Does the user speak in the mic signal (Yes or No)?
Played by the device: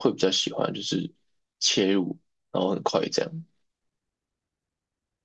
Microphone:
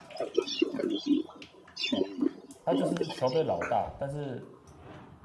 Yes